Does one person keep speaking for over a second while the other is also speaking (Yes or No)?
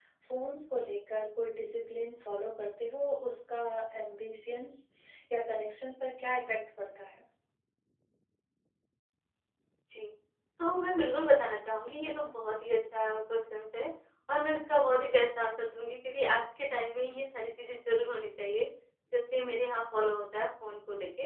No